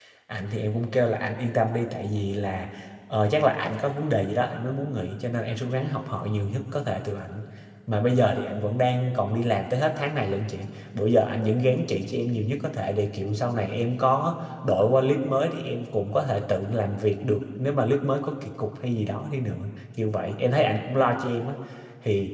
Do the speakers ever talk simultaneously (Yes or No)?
No